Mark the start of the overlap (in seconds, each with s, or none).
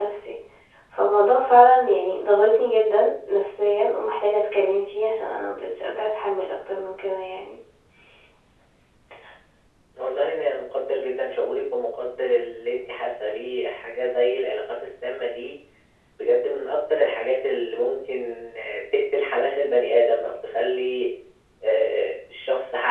none